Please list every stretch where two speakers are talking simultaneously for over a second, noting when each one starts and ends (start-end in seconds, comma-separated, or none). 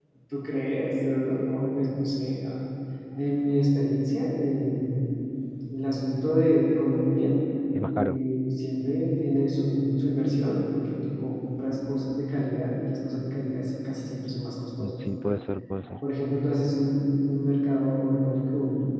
none